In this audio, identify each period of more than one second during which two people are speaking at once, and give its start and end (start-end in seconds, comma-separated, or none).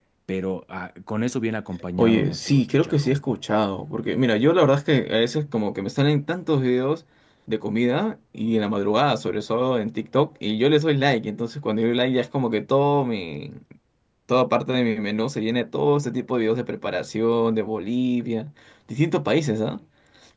2.0-3.2